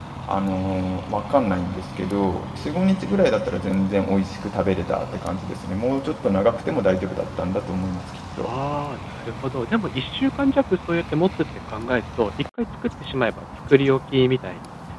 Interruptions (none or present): none